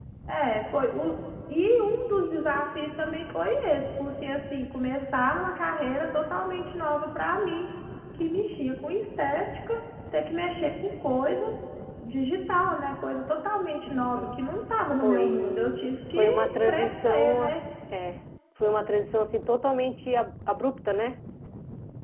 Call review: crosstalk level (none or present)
present